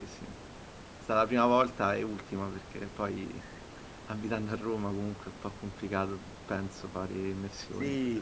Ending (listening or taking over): taking over